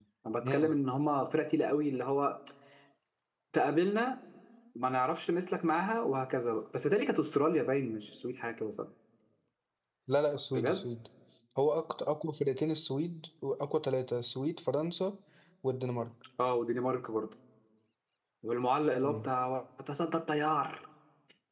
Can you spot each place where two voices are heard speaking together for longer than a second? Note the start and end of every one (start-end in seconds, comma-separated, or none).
none